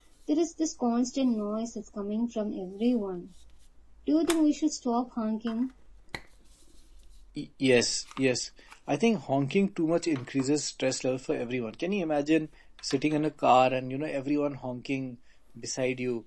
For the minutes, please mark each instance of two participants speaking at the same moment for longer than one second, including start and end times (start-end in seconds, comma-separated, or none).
none